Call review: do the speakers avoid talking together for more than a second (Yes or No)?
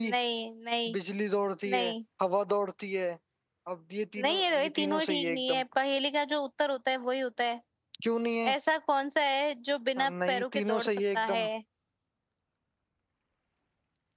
No